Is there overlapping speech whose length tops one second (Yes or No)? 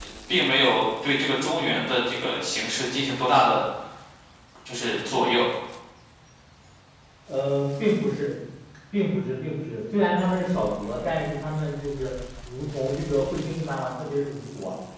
No